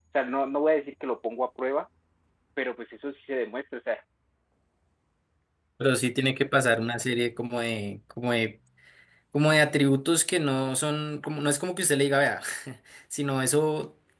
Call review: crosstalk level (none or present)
none